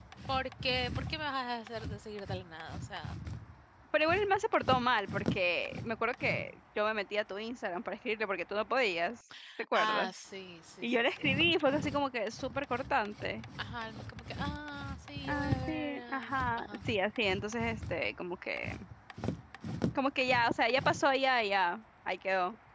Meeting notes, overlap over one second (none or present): present